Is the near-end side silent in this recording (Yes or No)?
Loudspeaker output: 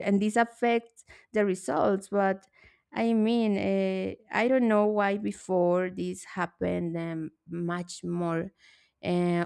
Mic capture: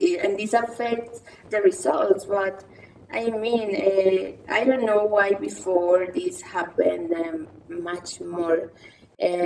Yes